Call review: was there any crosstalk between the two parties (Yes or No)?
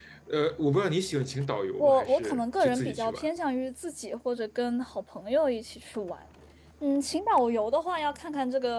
Yes